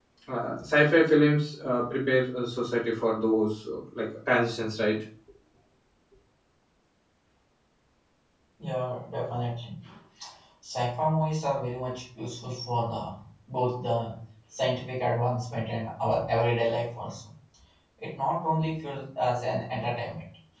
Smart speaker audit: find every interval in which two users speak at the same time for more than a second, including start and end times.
none

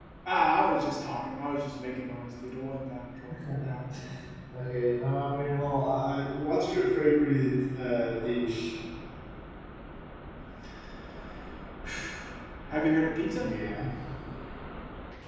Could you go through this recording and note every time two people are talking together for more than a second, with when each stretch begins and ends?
none

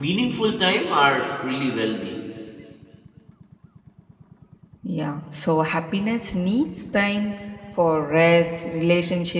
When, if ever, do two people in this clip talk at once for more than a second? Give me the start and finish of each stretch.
none

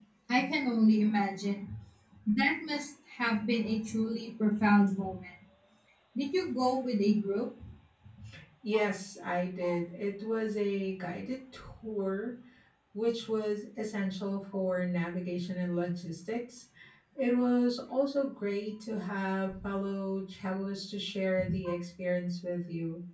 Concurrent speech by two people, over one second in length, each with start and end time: none

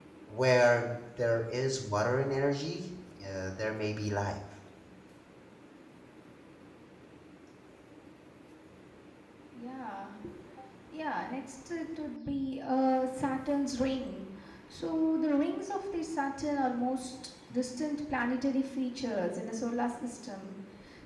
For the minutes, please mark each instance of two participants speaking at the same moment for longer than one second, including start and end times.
none

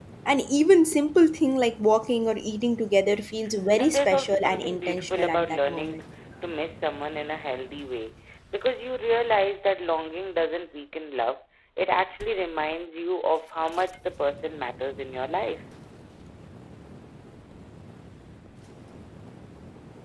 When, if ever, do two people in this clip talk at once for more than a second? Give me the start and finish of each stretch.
3.8-6.0

